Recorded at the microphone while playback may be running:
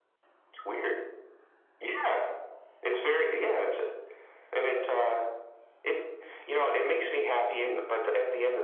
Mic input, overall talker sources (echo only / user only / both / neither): echo only